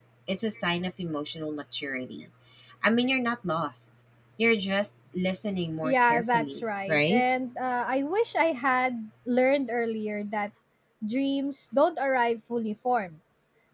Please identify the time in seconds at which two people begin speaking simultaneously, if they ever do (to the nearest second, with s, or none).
6 s